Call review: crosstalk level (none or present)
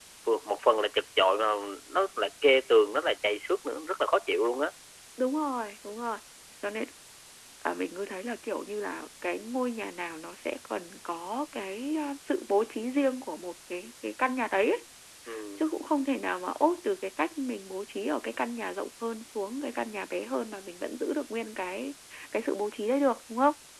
none